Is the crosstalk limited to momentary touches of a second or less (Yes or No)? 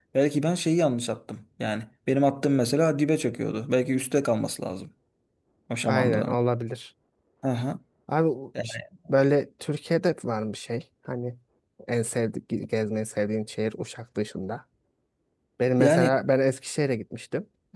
Yes